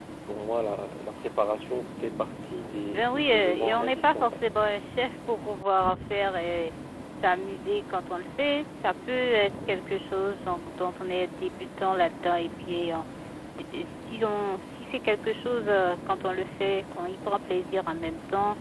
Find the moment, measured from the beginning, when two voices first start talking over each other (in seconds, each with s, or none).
2.9 s